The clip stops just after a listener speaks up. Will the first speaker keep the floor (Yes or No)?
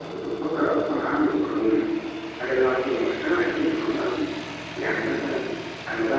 Yes